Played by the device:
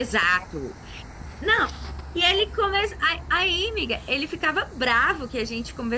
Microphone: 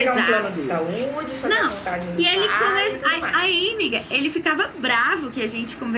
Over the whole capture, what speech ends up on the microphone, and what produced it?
both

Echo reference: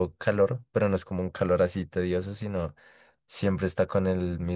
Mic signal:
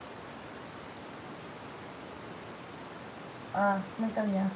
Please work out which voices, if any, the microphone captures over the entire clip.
user only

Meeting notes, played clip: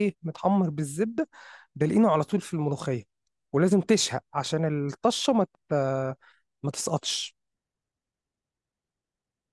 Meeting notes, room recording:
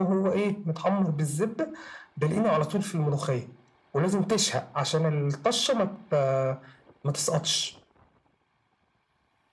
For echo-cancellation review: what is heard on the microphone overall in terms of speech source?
echo only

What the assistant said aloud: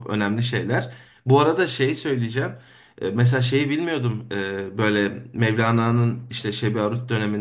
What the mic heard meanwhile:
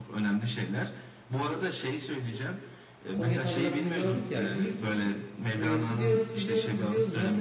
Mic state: both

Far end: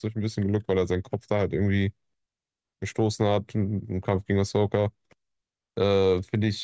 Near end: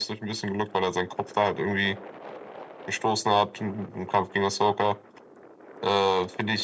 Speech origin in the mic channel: echo only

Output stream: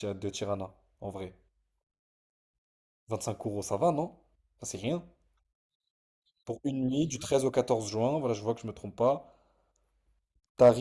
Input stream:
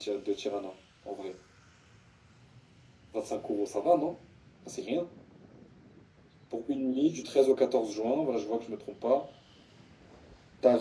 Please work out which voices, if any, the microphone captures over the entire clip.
echo only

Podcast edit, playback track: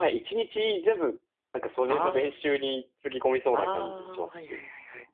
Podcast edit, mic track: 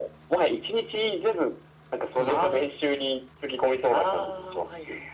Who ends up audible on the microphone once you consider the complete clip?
both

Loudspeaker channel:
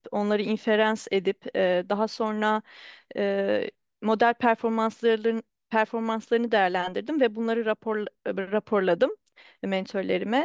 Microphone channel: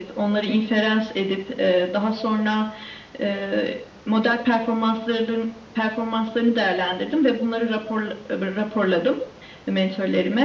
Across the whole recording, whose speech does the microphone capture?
echo only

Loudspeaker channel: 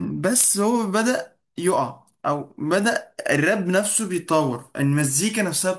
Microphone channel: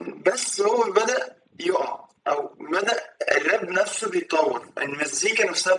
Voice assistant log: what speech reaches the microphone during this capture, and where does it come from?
echo only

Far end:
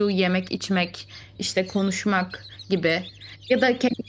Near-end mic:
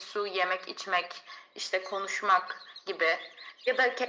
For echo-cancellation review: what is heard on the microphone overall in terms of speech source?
echo only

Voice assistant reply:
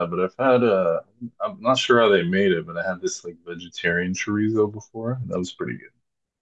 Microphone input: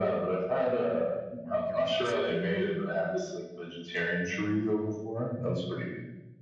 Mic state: both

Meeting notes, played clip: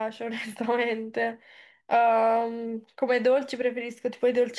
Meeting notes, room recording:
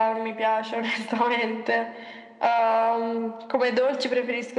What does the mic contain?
echo only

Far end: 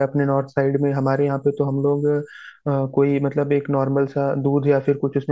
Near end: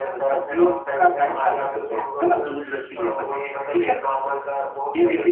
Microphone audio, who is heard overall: both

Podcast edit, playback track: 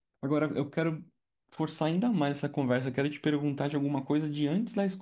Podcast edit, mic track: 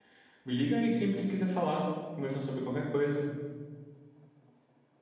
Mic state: user only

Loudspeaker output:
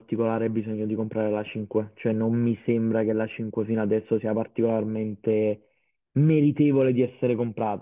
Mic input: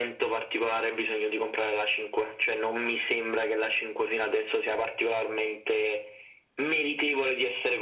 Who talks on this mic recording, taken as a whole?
echo only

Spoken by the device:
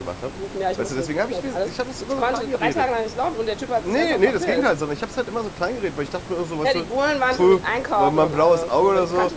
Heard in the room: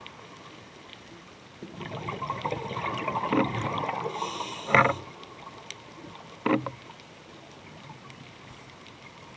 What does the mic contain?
neither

